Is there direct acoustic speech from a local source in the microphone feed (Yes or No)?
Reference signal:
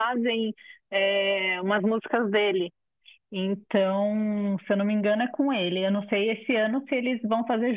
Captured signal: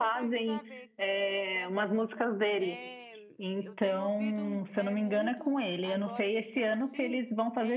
Yes